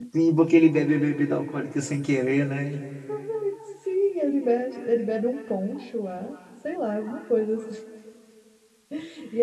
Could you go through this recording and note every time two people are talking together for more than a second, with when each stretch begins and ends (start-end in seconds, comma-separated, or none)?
none